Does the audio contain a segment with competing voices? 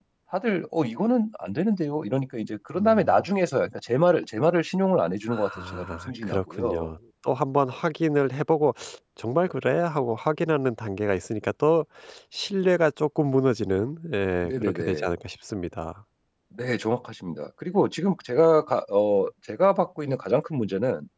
Yes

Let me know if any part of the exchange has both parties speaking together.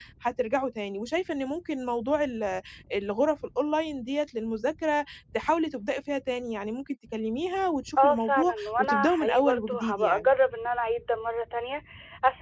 Yes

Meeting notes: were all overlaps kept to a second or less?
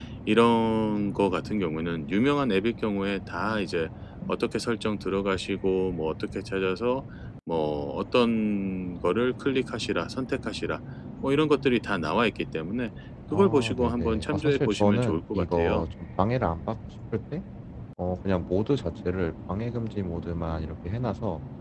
No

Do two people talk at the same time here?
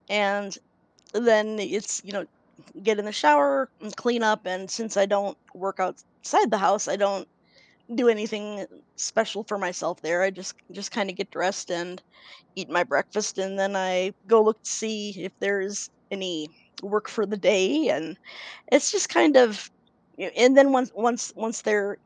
No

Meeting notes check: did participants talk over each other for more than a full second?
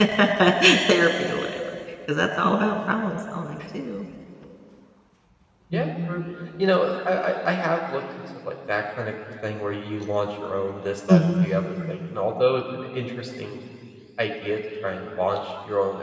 No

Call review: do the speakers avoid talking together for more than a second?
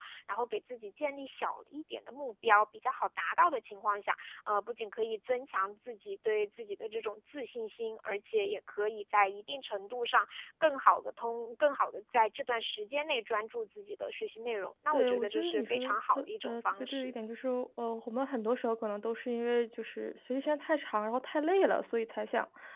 No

